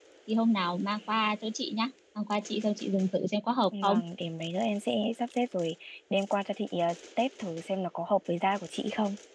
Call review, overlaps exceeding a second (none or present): none